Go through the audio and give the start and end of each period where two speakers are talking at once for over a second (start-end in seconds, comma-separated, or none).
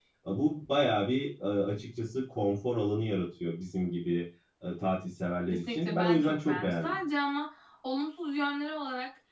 5.5-7.0